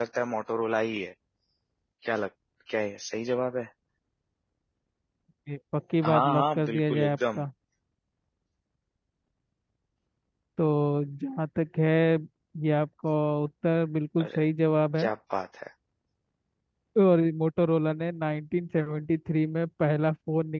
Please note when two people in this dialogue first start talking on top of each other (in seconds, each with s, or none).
6.0 s